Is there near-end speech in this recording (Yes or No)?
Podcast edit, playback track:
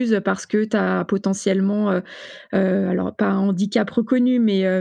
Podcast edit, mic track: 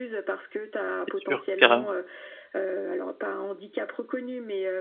Yes